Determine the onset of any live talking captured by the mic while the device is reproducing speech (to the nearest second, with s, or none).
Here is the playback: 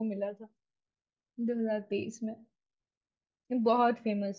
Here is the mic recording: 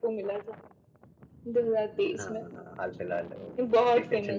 2 s